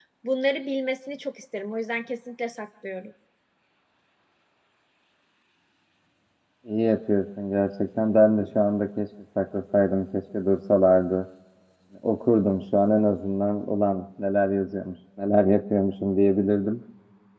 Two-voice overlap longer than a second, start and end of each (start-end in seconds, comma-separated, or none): none